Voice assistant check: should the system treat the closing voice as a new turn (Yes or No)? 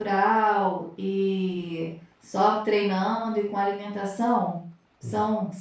No